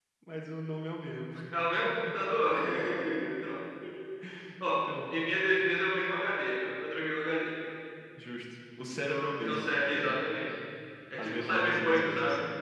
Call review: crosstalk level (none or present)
present